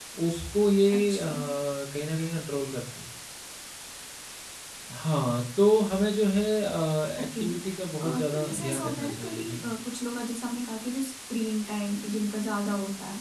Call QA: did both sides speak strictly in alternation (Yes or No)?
No